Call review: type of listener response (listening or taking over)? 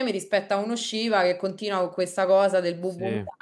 listening